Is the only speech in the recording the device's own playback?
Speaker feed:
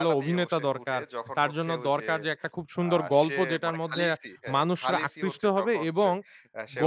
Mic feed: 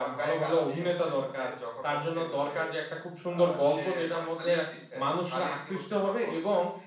Yes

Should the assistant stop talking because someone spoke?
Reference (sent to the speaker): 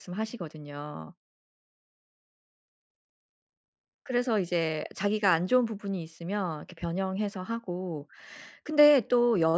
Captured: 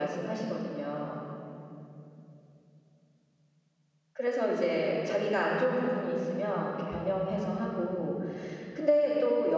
No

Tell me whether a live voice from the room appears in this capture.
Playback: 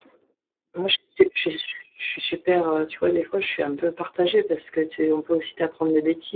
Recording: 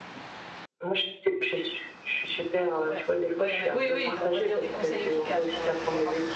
Yes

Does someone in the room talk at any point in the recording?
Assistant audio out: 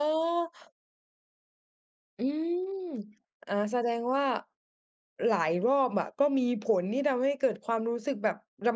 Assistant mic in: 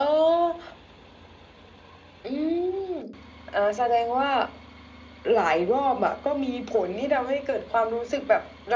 No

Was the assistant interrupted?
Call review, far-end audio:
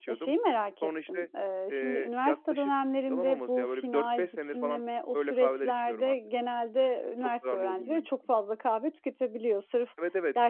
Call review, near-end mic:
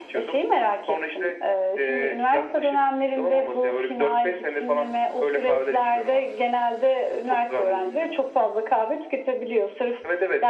No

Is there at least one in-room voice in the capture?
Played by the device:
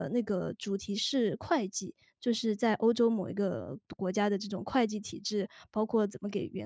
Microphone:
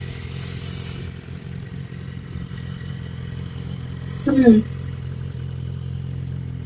Yes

